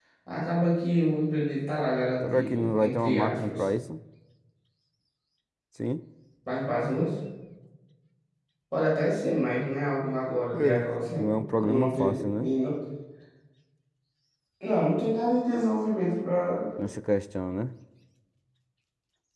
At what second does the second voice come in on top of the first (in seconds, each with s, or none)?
2.2 s